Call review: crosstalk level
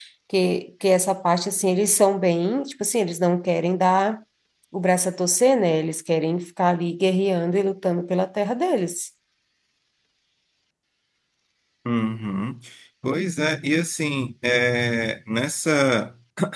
none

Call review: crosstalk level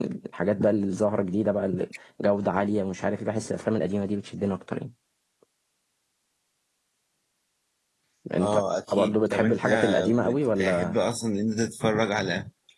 present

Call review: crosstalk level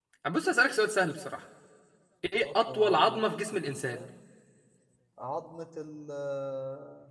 present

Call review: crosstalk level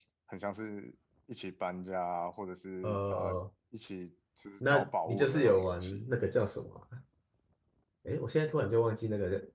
present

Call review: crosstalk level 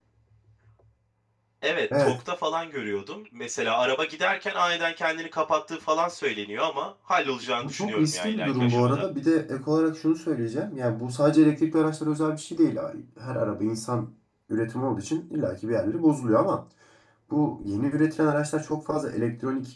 present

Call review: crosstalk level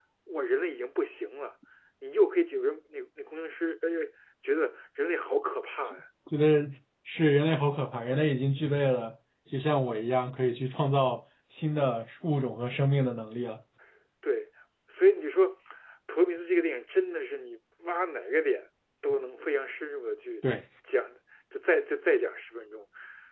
none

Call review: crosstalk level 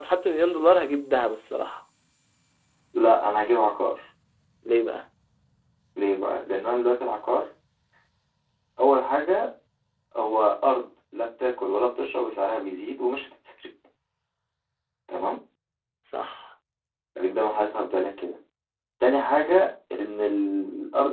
none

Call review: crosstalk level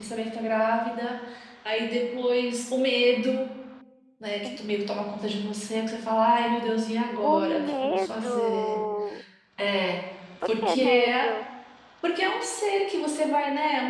present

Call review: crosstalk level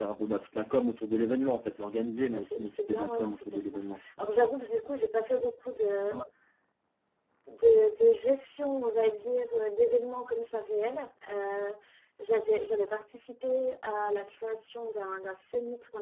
present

